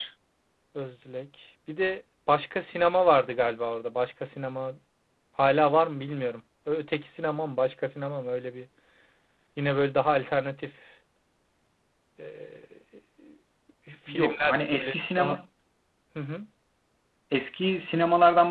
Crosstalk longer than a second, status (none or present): present